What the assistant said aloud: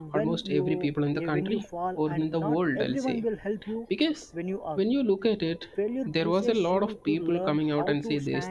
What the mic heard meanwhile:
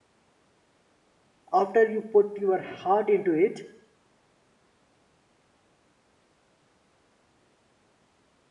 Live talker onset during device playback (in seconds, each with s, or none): 1.5 s